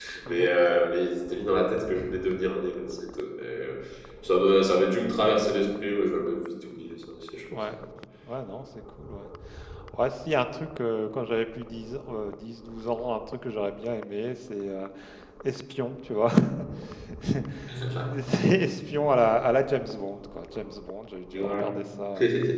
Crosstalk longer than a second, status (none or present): none